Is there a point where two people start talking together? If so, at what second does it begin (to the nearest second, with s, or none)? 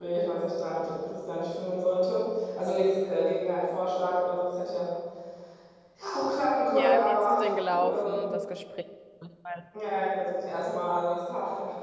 7 s